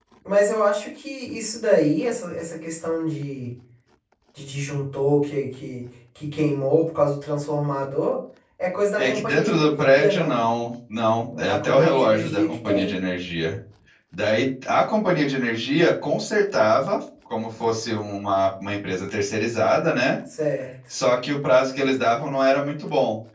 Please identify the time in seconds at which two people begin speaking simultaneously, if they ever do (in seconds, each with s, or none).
8.9 s